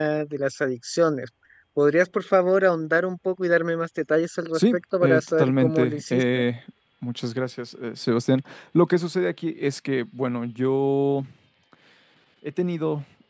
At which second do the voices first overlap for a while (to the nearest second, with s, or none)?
5 s